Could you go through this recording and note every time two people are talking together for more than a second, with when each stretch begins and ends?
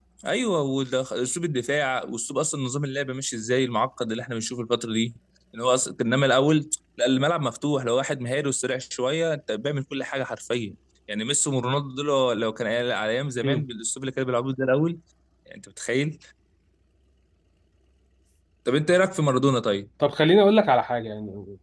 none

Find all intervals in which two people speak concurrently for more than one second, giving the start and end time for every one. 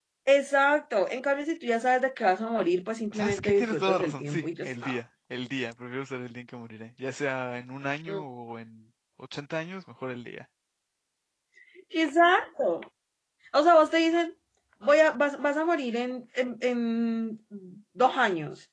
3.1-5.0

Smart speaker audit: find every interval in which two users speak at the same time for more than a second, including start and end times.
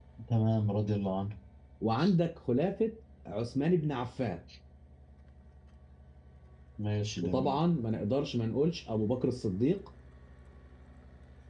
none

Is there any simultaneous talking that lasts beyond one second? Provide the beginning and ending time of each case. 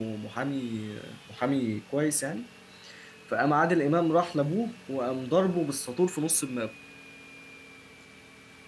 none

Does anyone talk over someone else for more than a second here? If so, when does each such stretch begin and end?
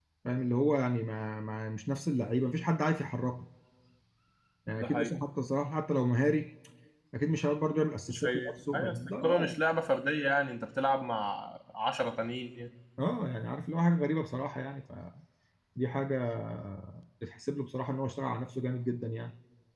8.1-9.5

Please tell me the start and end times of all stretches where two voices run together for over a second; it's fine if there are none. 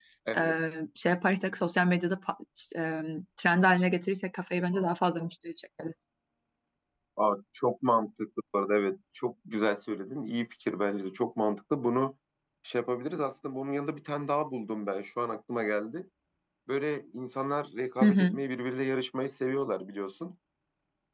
none

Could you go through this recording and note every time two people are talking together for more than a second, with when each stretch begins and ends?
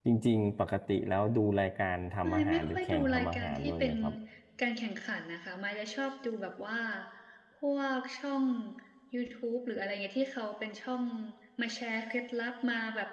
2.2-3.9

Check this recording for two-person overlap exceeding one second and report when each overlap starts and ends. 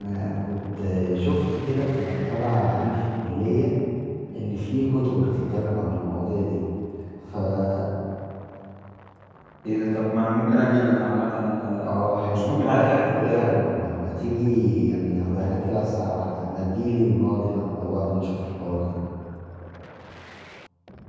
12.3-13.6

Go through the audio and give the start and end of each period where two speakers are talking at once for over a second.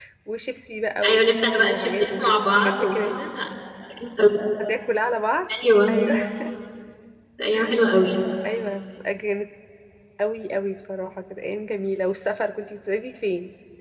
1.1-3.1

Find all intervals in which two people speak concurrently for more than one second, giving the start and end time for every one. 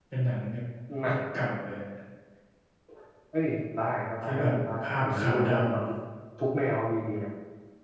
4.2-5.6

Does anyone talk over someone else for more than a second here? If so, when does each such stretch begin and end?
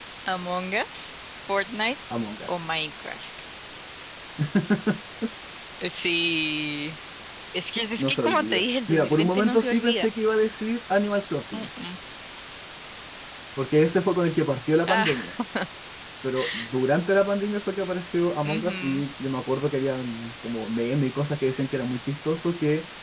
8.0-10.1

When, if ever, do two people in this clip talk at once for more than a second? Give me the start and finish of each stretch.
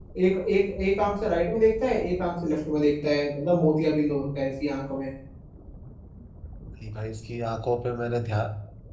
none

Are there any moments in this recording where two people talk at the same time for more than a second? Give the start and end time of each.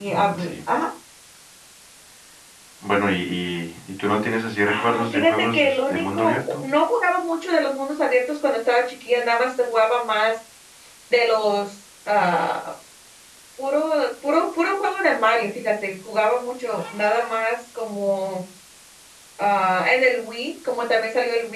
4.7-6.6

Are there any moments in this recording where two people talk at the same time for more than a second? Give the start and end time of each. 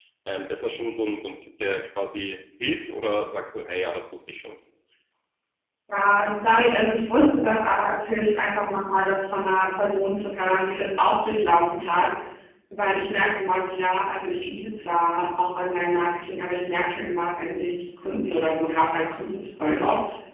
none

